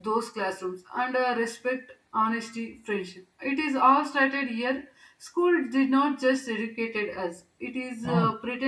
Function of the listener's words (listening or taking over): listening